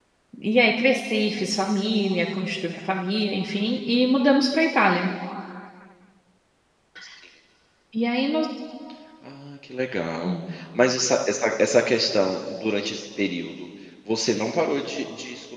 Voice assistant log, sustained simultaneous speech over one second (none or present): none